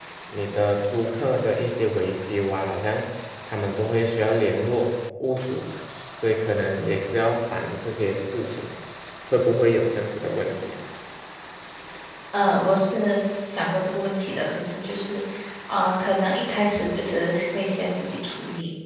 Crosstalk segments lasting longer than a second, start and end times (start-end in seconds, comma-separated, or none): none